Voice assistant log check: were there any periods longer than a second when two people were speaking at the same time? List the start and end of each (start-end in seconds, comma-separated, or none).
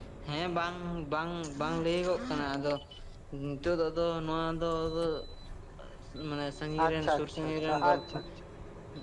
6.8-8.1